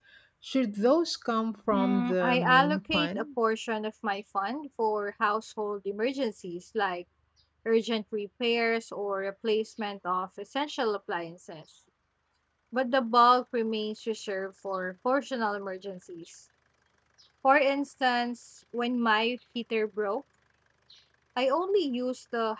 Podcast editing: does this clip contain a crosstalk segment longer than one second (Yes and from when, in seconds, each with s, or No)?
Yes, from 1.7 s